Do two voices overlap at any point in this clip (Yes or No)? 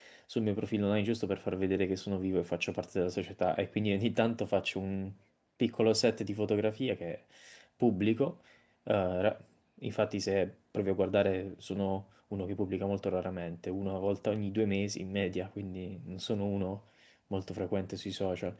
No